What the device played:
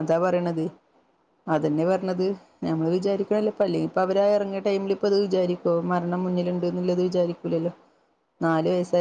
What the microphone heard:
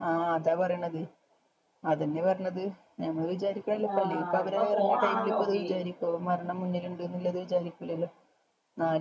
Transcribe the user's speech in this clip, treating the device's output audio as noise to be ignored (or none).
ആഹ് ഇപ്പൊ ഫോണാണല്ലോ മെയിൻ